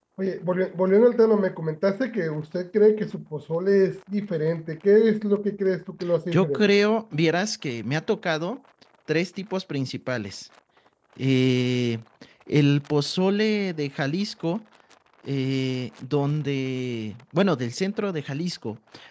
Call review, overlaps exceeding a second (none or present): none